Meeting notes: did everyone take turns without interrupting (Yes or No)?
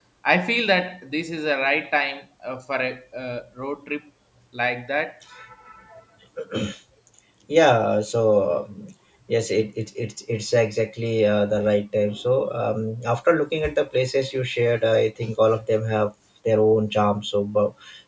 Yes